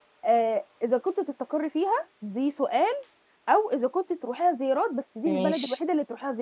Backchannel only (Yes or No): Yes